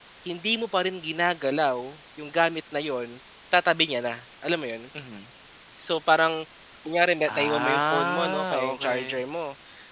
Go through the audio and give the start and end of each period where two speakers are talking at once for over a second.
7.3-9.2

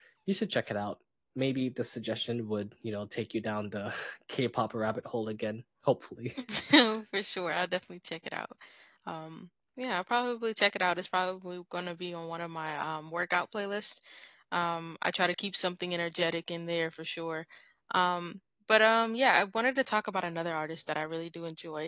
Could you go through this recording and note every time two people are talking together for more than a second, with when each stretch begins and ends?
none

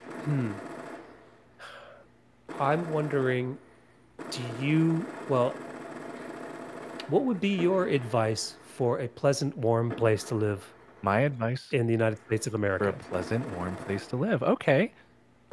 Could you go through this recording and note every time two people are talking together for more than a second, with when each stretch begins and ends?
none

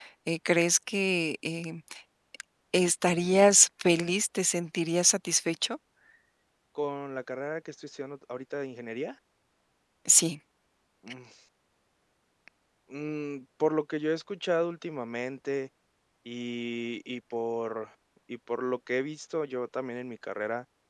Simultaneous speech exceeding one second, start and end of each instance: none

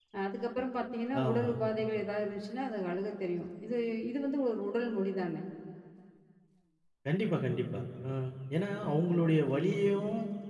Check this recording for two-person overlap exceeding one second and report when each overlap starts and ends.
none

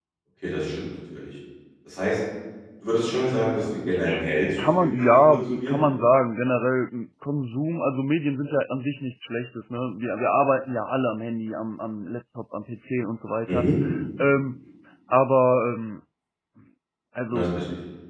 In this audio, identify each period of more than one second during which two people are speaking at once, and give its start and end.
4.6-5.8

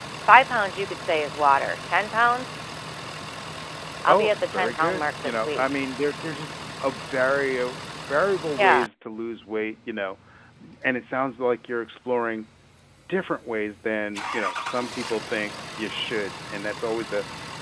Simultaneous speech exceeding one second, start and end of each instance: 4.1-5.6

